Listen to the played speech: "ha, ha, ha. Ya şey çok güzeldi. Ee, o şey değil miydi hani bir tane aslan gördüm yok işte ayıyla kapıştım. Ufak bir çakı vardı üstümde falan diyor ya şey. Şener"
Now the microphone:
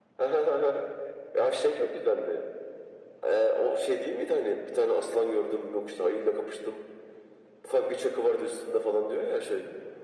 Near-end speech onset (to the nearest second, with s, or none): none